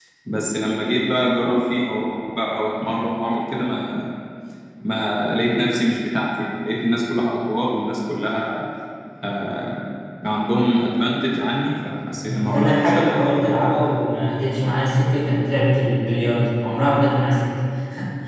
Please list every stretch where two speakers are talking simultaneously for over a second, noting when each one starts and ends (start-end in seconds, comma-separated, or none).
12.2-13.5